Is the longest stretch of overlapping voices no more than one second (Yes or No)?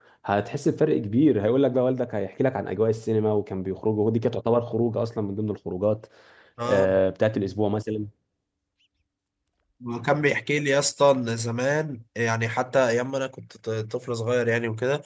Yes